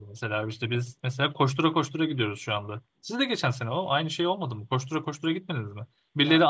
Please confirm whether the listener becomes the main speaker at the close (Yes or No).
No